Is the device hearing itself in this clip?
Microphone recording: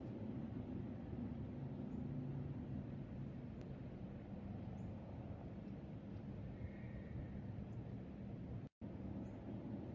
No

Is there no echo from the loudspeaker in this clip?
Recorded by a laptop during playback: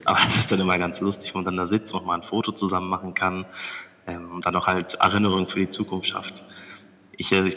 No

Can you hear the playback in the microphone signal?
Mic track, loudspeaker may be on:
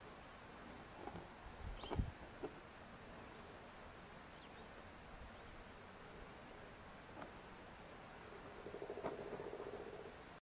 No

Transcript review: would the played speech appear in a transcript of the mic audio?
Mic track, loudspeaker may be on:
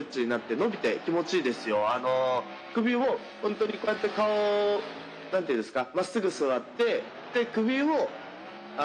Yes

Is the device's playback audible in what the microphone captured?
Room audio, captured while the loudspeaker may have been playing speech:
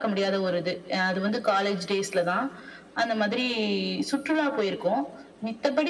Yes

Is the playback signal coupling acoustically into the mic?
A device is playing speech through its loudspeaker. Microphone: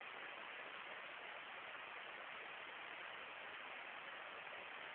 No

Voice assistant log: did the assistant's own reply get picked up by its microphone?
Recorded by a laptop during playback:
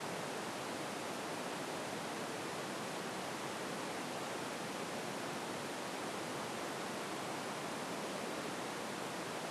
No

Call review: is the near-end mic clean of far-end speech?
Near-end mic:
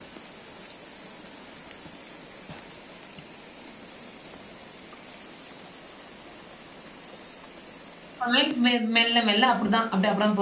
Yes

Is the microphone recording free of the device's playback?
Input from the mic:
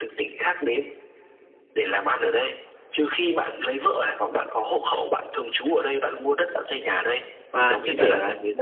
No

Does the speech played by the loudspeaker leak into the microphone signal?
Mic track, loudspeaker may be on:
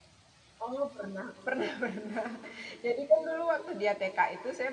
No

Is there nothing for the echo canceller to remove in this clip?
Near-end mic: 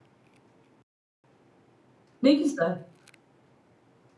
Yes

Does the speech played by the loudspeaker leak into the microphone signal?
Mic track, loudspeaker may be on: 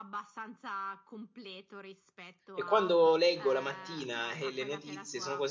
Yes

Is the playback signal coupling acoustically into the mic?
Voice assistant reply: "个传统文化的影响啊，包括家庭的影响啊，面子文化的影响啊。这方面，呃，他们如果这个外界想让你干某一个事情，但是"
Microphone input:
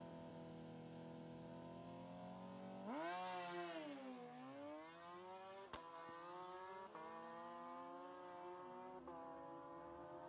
No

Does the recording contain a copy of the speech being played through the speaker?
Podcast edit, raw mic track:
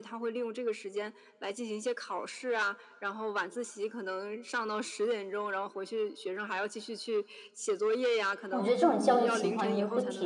Yes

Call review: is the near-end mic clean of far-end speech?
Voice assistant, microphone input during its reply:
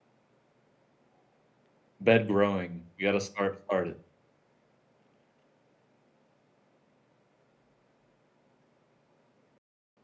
Yes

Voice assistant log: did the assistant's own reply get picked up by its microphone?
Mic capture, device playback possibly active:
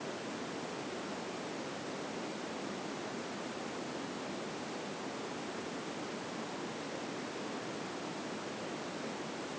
No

